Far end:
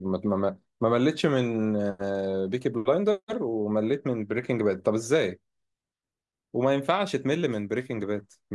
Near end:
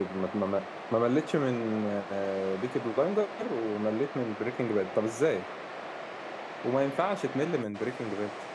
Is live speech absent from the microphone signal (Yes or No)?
Yes